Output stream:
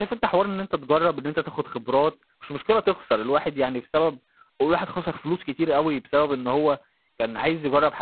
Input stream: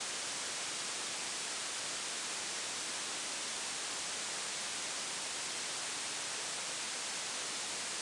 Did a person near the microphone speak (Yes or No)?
No